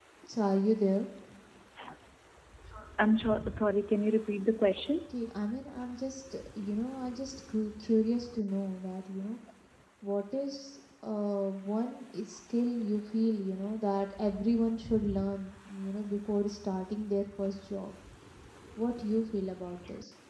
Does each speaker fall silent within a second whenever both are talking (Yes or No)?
Yes